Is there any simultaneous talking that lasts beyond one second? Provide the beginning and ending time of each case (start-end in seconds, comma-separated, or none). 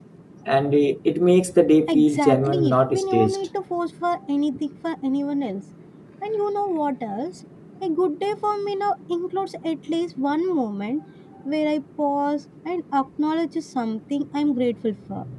1.9-3.4